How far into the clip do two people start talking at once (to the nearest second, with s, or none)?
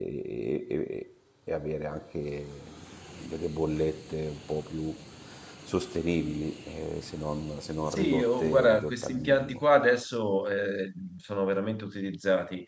8 s